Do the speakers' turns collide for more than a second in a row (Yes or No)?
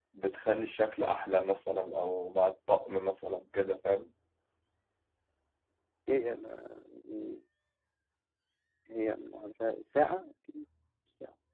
No